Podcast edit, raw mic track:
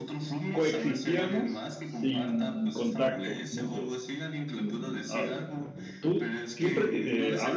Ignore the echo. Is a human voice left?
Yes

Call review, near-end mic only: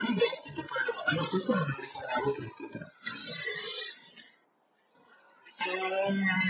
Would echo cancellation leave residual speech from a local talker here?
No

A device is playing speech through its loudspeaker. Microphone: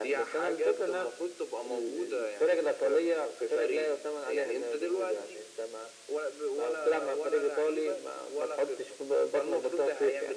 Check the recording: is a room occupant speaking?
No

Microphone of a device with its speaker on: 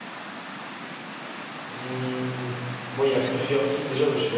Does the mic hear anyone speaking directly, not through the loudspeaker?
Yes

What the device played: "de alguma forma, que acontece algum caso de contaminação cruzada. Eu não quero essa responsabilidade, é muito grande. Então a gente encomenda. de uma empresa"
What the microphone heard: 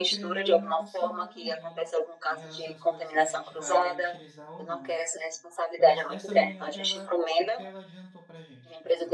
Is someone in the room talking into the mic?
Yes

